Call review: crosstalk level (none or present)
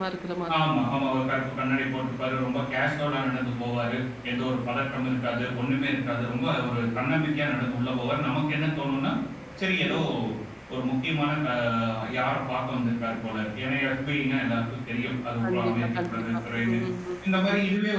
present